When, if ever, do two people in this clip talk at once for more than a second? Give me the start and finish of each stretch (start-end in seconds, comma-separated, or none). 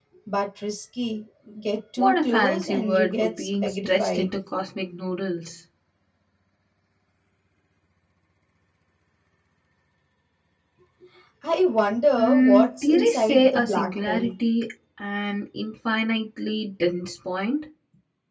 2.0-4.3, 12.2-14.3